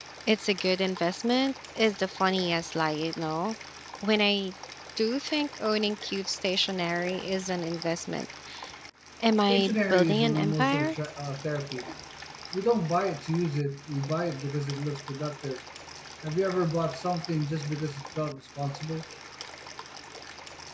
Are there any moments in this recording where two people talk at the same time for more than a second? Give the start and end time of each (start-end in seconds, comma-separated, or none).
9.5-10.9